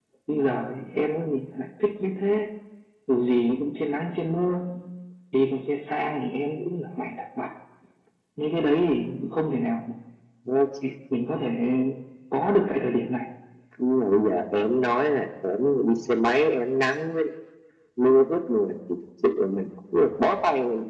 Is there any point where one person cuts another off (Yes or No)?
No